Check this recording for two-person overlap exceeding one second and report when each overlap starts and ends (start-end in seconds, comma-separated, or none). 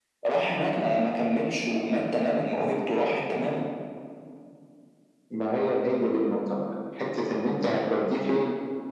none